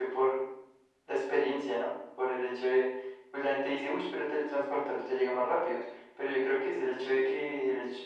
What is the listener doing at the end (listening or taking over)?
listening